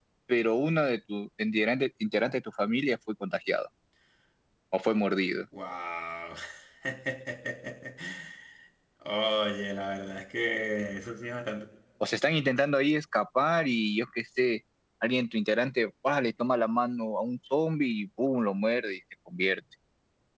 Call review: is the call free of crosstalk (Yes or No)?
Yes